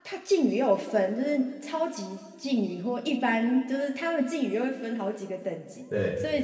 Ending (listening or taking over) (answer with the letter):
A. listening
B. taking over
A